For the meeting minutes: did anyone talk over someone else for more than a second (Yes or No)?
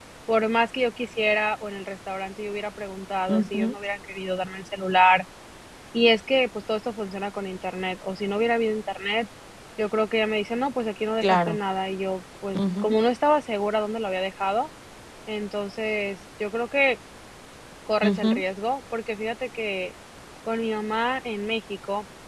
No